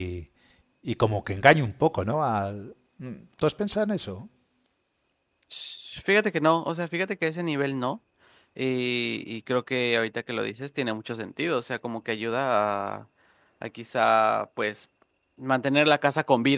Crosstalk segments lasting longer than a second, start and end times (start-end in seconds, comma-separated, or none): none